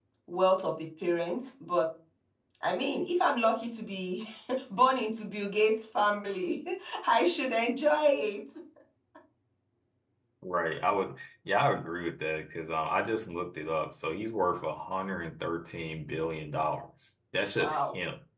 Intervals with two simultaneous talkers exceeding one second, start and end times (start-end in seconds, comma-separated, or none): none